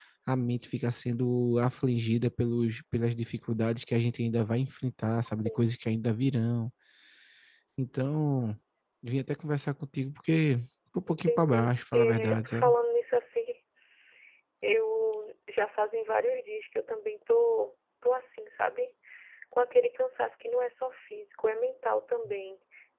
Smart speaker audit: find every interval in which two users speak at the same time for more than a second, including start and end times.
11.1-12.7

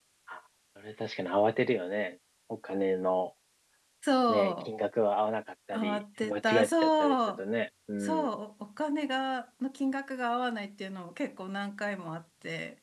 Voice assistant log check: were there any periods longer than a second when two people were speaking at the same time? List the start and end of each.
5.7-7.4

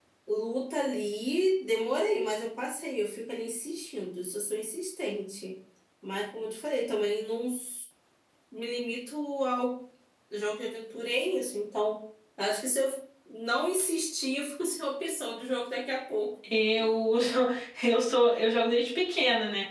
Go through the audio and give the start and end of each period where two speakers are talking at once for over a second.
none

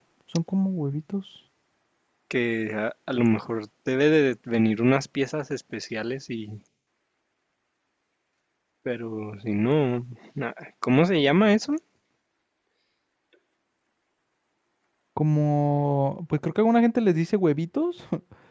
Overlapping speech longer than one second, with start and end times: none

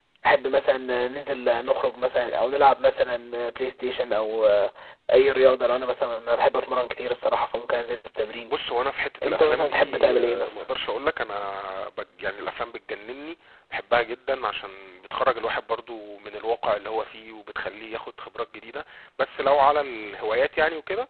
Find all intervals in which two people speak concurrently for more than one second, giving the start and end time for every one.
9.2-10.6

